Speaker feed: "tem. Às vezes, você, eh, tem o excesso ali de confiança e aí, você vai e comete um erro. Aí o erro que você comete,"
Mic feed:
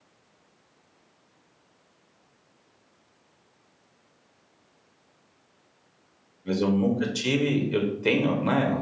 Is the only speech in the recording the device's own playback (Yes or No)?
No